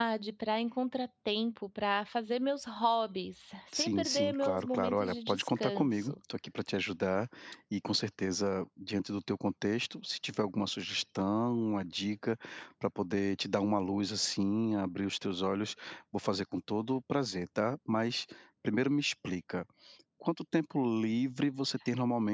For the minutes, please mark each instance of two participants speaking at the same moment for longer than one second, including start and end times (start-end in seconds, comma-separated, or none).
3.8-6.1